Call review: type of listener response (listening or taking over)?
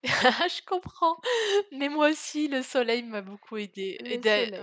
listening